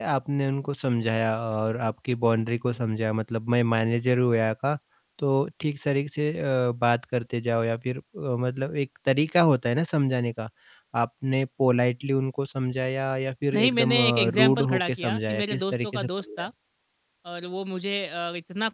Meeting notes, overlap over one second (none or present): present